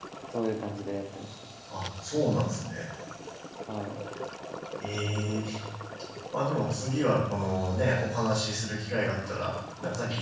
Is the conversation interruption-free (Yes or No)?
Yes